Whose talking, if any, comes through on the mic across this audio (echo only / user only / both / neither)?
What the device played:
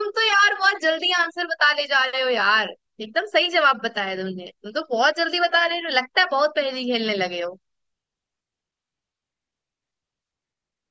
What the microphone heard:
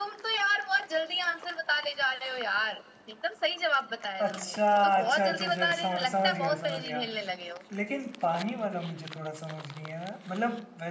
both